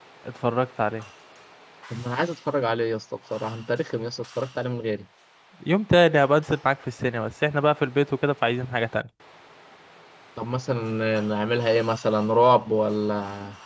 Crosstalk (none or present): none